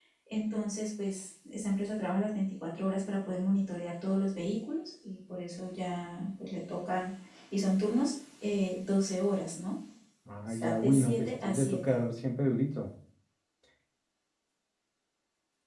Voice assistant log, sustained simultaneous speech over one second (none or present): present